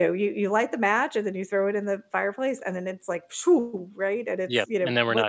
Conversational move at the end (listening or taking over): taking over